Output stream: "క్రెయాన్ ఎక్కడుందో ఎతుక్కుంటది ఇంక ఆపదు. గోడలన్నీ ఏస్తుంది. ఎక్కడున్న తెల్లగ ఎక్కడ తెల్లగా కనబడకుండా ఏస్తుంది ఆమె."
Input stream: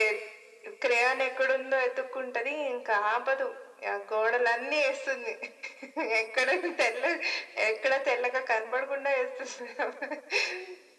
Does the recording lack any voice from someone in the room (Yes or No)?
Yes